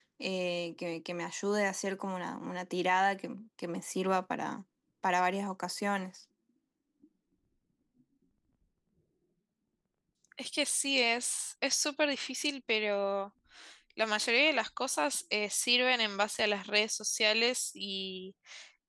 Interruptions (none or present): none